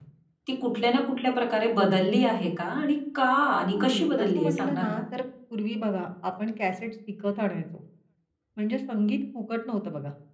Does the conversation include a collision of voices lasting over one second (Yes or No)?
Yes